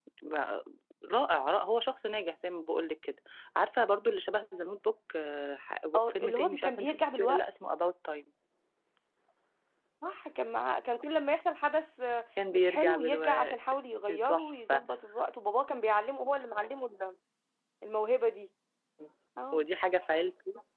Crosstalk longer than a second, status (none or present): present